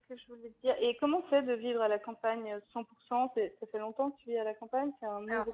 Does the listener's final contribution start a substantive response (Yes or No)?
Yes